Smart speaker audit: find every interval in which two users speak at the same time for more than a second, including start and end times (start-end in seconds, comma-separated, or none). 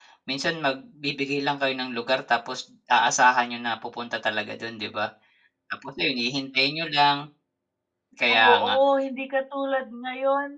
none